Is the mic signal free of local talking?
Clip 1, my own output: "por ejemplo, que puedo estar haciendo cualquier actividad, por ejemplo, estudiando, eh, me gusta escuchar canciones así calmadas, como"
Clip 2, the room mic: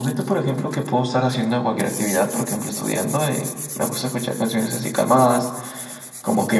Yes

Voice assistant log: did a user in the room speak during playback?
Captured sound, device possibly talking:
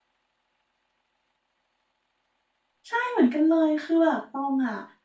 Yes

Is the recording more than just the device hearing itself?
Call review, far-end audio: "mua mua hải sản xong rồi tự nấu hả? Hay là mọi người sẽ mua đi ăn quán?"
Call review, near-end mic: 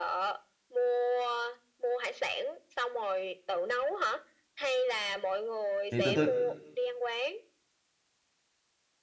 Yes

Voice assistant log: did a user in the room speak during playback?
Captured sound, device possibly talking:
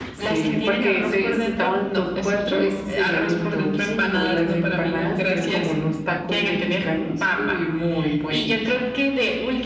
Yes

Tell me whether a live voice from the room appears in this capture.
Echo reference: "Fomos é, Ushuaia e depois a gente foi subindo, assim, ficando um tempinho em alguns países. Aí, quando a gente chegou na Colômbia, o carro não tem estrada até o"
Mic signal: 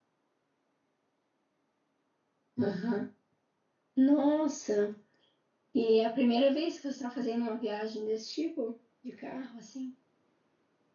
Yes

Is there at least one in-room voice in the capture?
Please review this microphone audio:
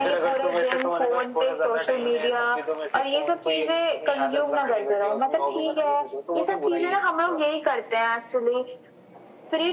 No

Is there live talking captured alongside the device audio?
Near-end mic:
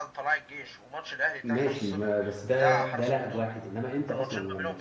Yes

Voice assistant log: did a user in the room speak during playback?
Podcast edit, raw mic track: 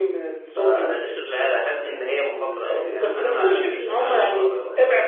Yes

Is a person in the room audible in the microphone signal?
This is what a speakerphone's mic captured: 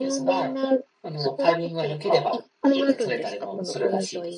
No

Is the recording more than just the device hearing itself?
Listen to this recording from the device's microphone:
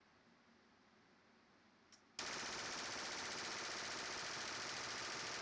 No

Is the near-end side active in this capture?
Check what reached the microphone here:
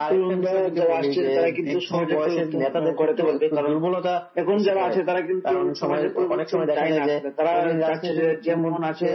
No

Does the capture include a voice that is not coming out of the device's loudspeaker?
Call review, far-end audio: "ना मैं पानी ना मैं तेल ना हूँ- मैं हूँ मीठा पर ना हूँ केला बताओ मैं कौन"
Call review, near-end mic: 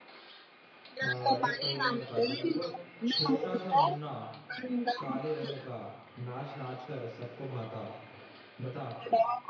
Yes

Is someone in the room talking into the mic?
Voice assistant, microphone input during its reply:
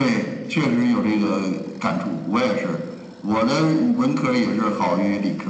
No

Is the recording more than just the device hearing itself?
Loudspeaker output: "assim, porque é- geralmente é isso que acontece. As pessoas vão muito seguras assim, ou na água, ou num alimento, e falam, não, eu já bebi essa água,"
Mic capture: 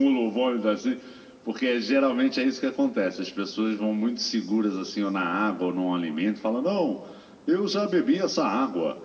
No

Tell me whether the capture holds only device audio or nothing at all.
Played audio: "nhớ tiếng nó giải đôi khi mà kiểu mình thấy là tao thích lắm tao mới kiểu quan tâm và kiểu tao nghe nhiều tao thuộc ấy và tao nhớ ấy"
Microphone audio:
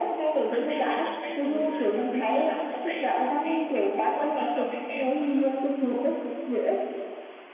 No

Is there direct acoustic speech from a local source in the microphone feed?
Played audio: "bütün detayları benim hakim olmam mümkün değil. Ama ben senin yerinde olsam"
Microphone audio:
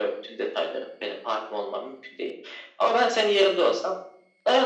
No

